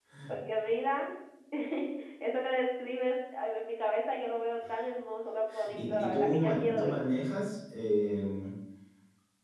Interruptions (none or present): present